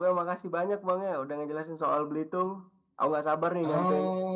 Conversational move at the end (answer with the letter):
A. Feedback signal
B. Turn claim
B